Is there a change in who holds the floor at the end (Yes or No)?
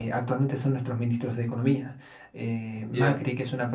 No